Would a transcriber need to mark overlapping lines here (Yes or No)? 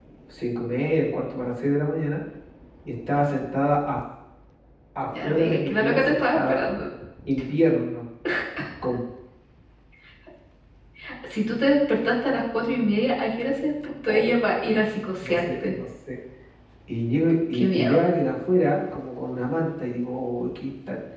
Yes